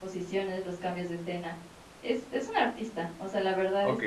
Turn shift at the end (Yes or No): Yes